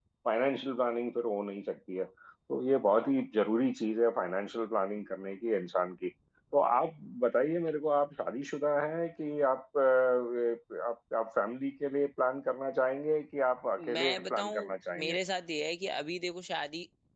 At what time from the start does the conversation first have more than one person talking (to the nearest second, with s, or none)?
14 s